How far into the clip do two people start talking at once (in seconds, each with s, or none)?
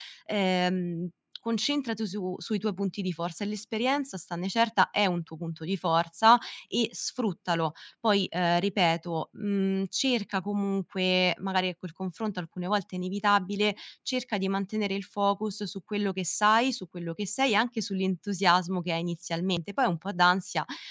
none